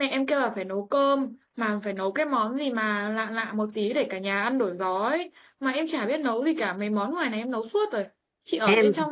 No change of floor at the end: Yes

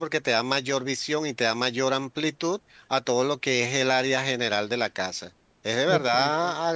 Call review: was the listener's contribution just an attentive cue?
Yes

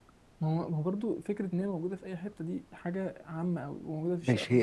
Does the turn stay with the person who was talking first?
No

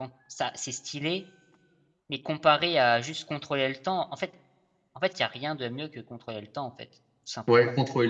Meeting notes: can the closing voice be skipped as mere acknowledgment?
No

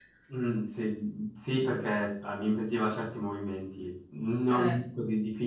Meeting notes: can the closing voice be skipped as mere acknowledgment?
Yes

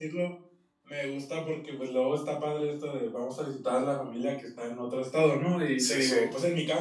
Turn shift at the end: No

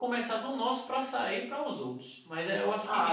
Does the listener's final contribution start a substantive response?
Yes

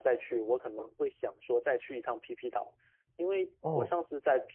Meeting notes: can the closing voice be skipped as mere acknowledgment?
Yes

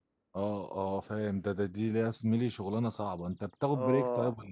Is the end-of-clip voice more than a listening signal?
Yes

